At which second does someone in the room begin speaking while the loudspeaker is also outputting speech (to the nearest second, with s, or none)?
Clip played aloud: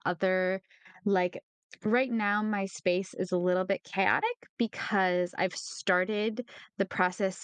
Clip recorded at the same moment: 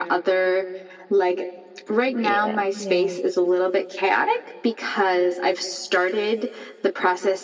2 s